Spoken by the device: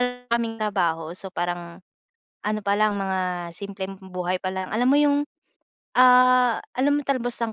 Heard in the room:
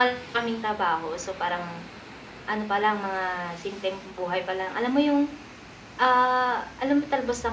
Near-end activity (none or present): none